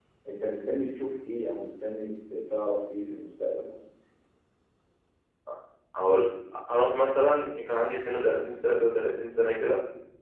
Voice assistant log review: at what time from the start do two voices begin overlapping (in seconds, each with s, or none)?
none